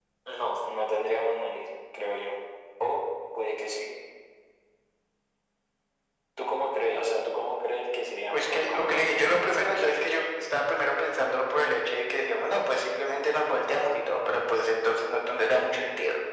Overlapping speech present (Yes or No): Yes